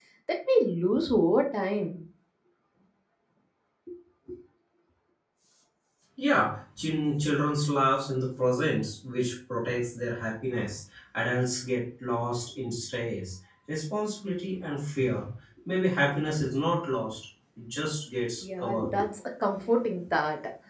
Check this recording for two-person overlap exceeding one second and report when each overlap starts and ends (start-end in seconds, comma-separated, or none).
none